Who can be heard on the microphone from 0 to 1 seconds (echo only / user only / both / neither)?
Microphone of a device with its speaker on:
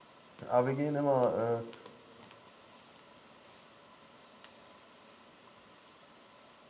user only